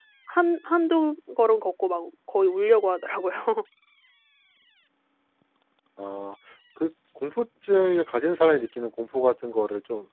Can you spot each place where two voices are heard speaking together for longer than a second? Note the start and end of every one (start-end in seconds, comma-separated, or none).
none